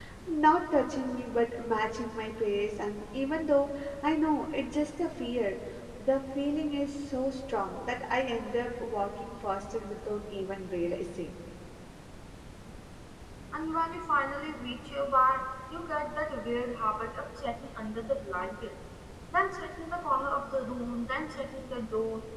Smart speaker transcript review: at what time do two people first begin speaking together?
none

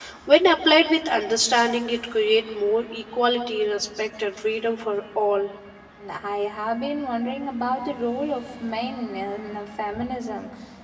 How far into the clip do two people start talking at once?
none

